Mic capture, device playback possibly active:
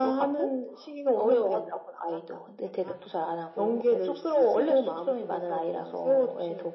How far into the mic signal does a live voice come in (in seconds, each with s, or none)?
none